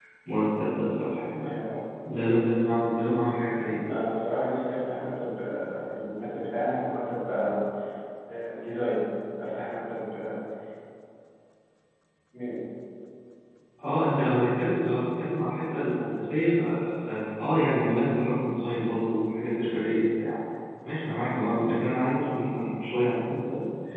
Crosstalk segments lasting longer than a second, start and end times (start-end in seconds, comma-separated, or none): none